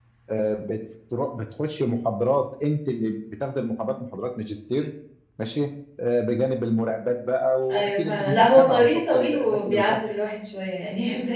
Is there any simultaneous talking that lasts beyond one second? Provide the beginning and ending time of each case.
7.7-10.0

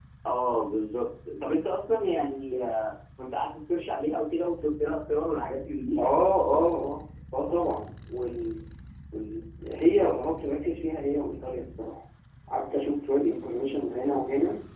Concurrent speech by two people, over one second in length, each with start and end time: none

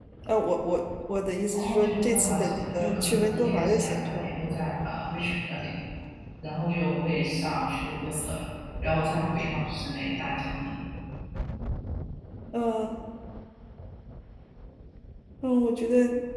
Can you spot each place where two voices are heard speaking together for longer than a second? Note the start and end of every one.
1.5-4.3

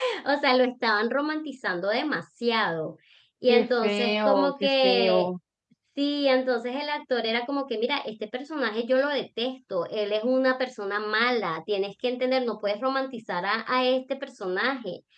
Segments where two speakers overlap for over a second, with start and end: 3.5-5.3

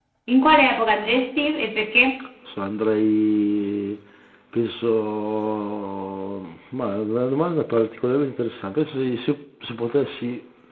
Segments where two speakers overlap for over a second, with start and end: none

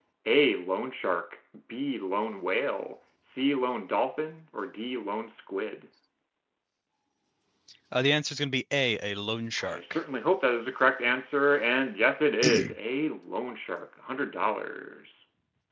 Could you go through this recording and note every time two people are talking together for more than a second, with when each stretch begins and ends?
none

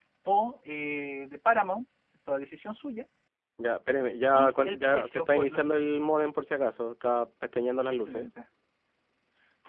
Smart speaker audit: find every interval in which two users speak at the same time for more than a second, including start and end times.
4.3-5.8

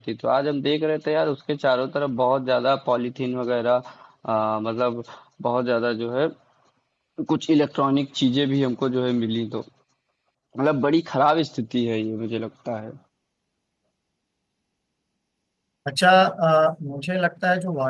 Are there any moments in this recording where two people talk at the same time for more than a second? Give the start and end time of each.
none

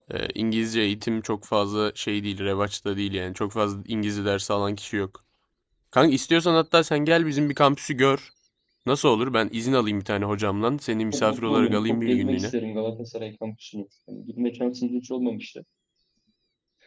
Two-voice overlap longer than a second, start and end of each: 11.1-12.5

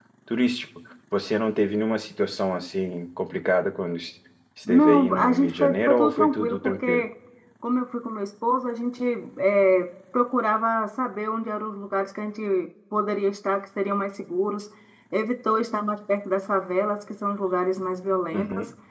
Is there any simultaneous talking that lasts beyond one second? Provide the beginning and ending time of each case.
4.7-7.0

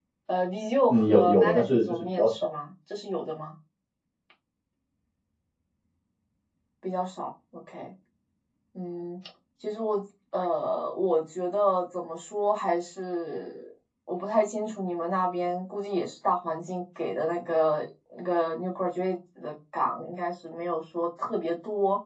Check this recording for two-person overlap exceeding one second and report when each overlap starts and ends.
0.9-2.5

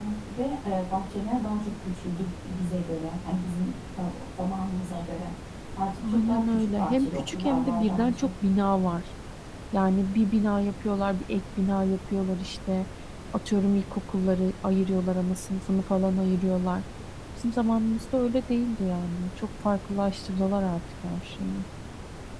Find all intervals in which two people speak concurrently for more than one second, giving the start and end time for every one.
6.1-8.2

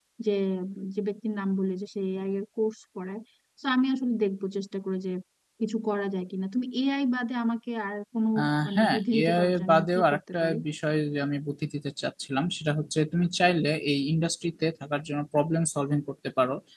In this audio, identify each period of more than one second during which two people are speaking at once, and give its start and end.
8.7-10.6

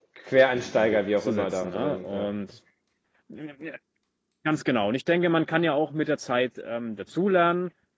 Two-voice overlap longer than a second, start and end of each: 0.5-2.3

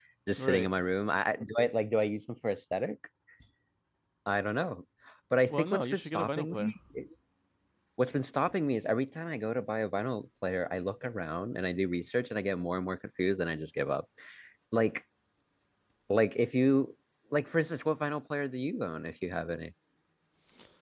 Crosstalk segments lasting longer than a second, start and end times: 5.5-6.7

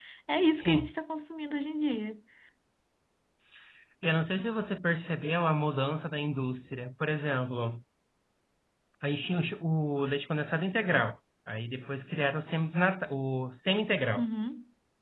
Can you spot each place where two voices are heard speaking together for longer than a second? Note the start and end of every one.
none

